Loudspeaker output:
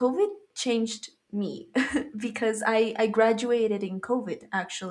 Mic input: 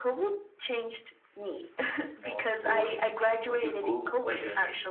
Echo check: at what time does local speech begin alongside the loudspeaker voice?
2.2 s

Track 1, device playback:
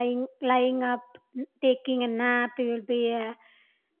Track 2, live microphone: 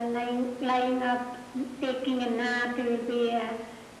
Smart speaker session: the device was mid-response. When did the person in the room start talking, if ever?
none

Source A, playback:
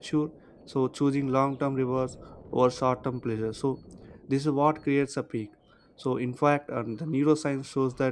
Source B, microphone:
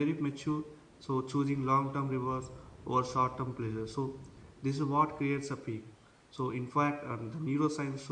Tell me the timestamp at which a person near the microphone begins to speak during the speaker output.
none

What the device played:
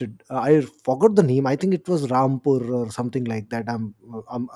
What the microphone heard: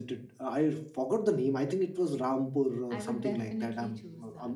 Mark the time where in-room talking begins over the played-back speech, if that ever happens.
2.9 s

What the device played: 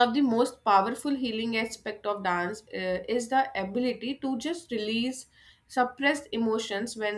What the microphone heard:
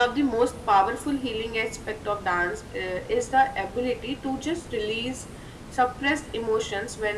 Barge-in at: none

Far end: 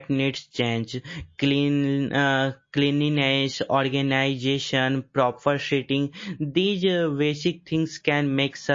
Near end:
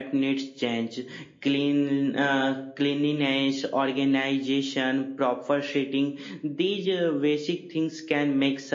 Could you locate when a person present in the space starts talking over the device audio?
none

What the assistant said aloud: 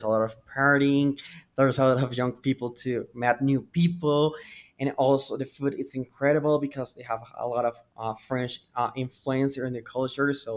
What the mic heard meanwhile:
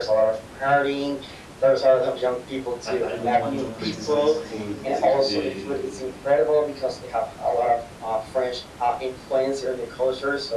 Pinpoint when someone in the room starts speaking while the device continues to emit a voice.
2.9 s

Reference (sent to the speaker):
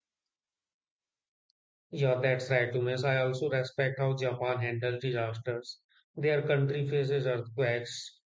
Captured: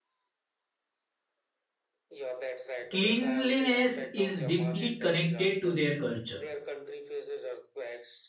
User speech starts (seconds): 2.9 s

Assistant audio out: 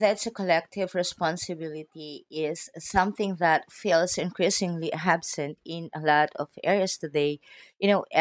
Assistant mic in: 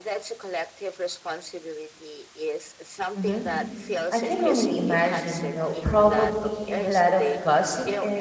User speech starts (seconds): 3.1 s

